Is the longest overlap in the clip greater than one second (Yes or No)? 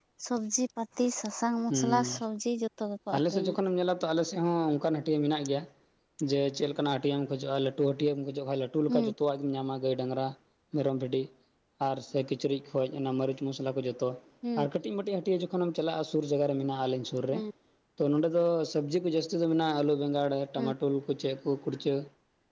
No